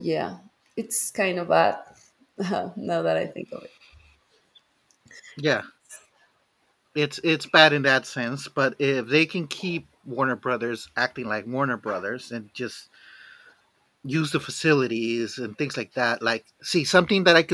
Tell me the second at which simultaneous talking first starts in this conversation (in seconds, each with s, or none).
none